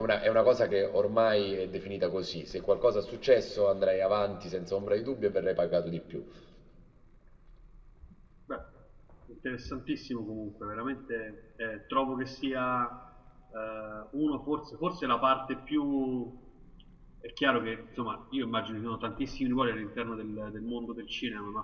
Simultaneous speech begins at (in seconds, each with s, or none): none